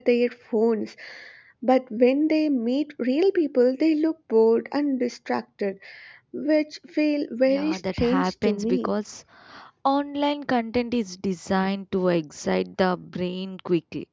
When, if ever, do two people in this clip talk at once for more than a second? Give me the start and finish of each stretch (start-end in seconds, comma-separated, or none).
7.5-8.9